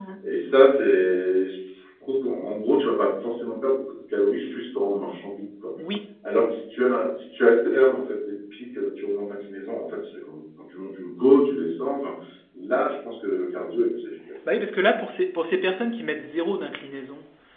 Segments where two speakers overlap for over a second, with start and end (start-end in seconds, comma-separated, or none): none